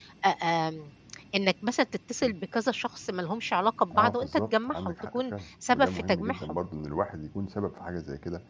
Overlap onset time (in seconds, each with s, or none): 3.9 s